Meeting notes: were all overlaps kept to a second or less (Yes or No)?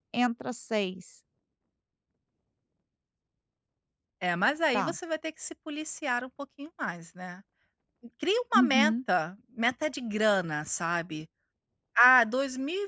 Yes